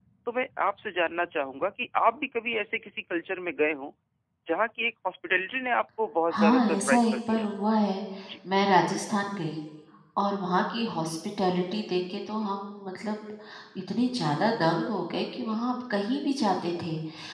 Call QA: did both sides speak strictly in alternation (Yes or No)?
No